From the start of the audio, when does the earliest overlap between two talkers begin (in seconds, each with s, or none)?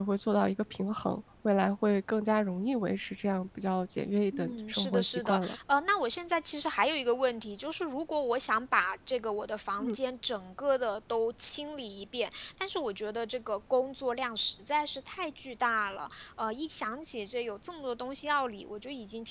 4.3 s